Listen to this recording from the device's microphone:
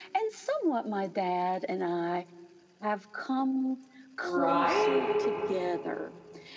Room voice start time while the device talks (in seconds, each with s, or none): 4.2 s